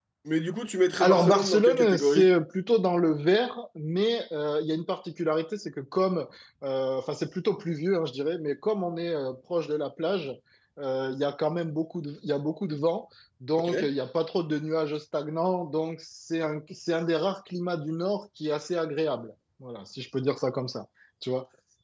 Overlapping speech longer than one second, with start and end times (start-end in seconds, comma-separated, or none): 1.0-2.3